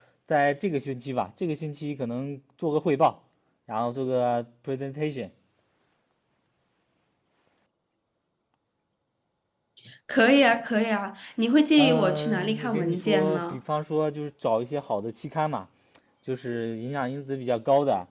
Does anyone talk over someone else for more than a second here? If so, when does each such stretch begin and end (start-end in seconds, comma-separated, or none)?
11.8-13.6